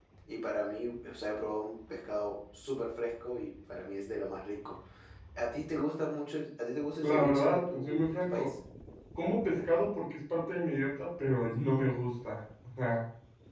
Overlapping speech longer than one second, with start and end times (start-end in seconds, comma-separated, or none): 7.0-8.5